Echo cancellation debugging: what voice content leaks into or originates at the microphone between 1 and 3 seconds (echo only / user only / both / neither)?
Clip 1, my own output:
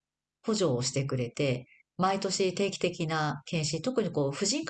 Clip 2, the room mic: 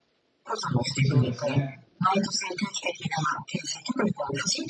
both